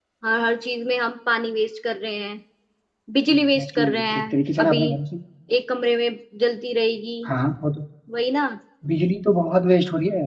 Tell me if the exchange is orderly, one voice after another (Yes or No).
No